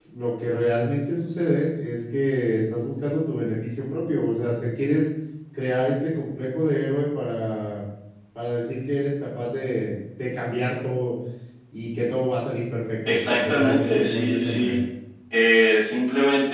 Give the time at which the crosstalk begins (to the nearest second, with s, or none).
13 s